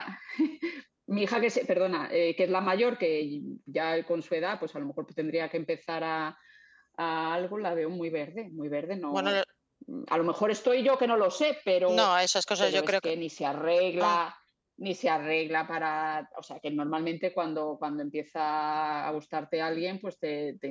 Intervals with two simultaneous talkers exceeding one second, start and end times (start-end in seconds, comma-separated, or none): none